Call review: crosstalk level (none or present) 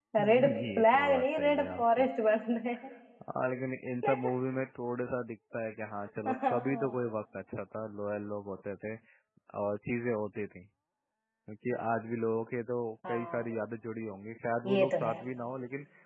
present